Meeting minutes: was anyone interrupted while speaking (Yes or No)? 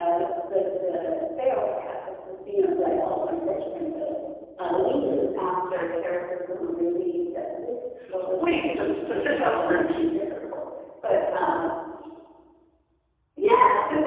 Yes